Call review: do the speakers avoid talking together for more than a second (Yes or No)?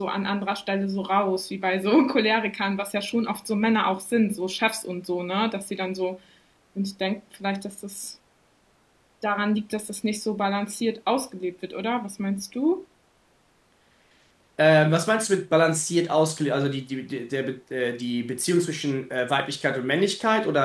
Yes